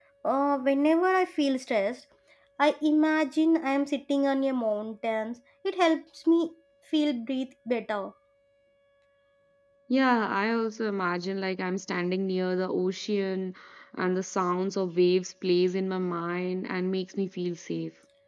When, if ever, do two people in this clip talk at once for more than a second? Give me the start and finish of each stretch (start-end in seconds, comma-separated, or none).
none